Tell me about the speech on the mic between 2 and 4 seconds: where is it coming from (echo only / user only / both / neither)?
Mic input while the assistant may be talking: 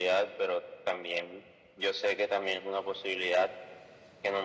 echo only